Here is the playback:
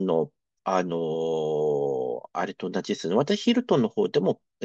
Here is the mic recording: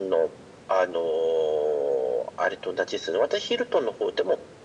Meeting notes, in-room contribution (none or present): none